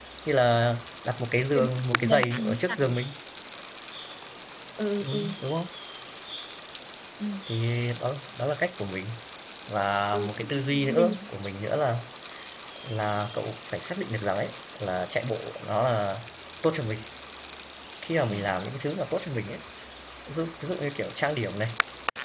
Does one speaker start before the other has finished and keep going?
Yes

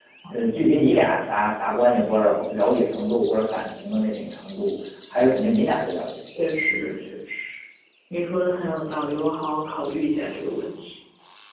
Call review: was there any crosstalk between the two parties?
No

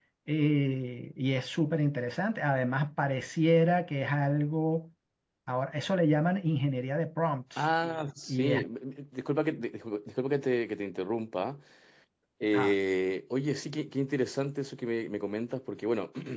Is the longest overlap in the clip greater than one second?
No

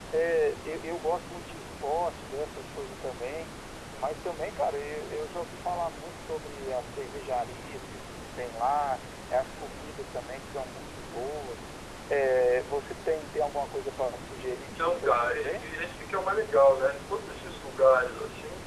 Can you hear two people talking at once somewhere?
Yes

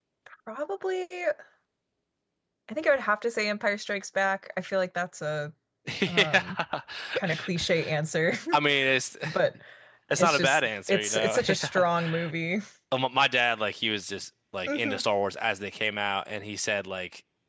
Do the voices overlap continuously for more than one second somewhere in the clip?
Yes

